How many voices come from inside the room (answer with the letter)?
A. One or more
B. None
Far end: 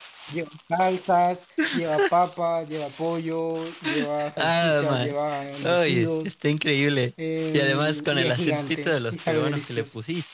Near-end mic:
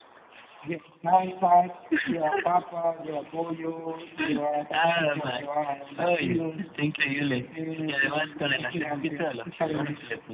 B